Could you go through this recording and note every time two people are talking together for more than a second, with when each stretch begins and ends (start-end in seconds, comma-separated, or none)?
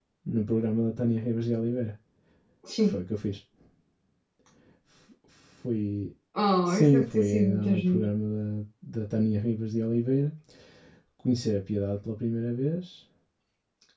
6.6-8.1